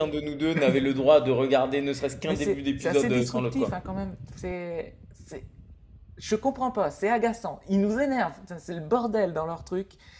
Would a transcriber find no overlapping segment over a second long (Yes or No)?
No